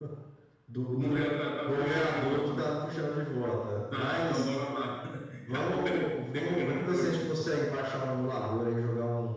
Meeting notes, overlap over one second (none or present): present